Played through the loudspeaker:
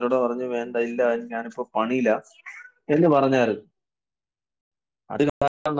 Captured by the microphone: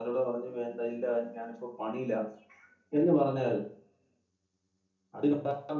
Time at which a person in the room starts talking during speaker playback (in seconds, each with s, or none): none